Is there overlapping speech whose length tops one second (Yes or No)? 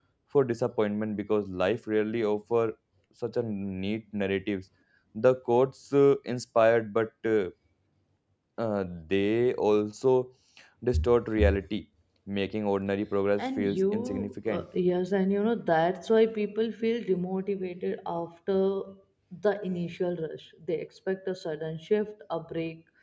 Yes